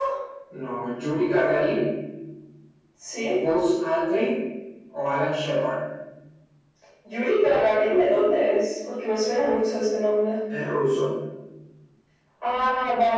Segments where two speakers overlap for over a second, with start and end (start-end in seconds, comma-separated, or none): none